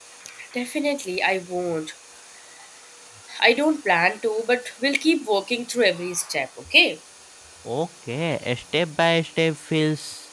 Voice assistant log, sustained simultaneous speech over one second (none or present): none